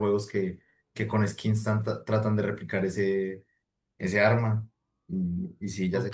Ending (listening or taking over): taking over